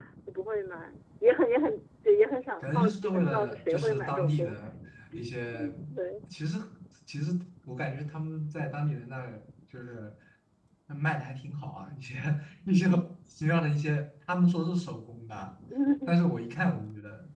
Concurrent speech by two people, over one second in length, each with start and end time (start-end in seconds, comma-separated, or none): 2.6-4.7